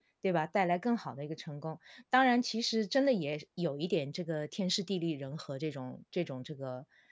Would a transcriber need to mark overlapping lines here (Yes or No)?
No